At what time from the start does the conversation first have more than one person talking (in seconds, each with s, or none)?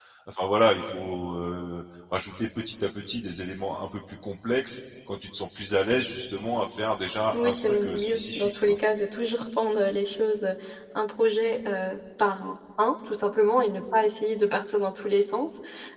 7.3 s